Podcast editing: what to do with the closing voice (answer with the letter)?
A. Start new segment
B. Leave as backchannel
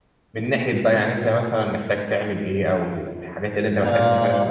A